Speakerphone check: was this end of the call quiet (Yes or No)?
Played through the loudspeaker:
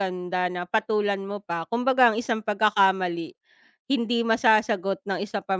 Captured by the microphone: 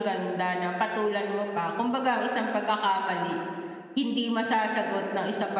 Yes